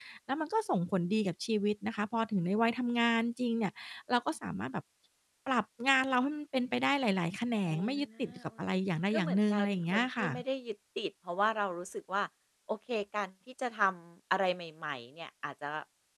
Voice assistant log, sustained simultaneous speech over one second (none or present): present